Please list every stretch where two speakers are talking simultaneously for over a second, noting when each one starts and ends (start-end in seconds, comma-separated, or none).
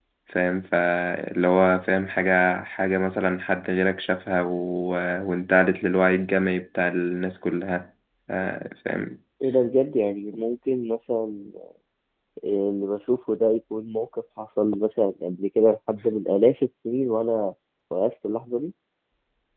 none